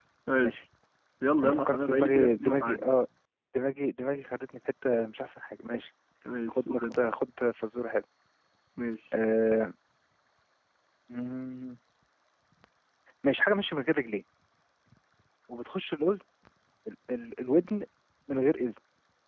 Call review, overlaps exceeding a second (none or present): present